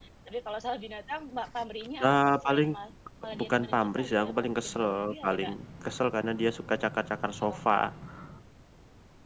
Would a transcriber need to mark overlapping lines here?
Yes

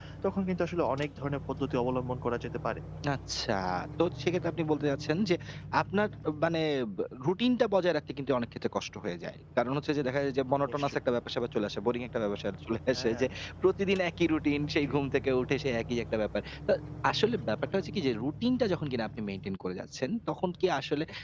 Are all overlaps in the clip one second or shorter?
Yes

